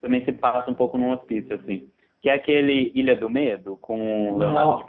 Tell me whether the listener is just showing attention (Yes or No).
No